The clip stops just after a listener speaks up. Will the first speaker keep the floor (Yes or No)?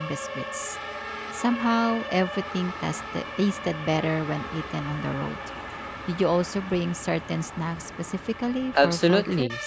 No